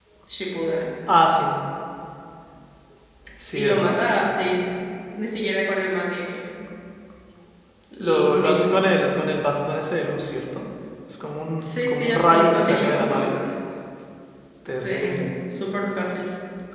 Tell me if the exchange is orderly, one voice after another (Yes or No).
No